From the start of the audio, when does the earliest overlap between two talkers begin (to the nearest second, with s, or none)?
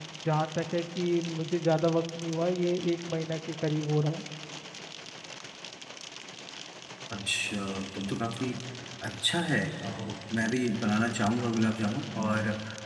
none